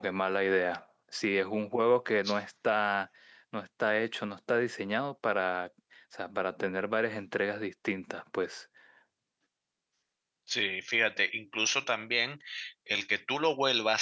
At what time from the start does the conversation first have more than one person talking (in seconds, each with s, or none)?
none